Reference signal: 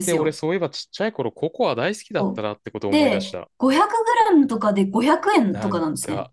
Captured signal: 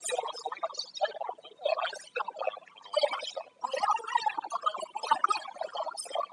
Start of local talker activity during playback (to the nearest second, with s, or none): none